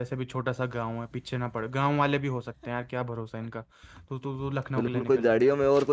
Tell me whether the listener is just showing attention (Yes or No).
No